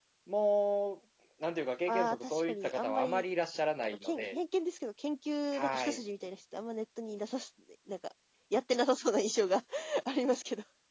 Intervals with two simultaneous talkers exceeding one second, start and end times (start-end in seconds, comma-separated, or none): 1.9-3.2